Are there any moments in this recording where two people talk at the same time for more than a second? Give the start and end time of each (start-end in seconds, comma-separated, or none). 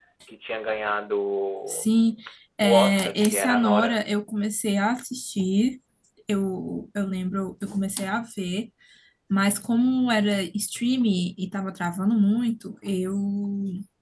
2.6-4.0